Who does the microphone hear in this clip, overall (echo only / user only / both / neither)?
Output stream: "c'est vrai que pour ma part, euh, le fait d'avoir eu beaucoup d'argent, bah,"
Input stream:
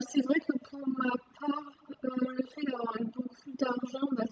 echo only